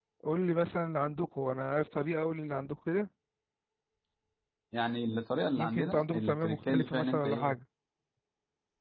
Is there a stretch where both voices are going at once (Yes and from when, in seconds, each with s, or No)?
Yes, from 5.6 s